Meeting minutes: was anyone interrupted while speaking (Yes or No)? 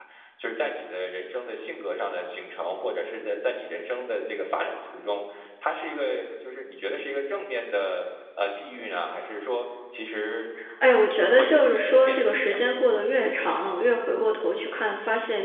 Yes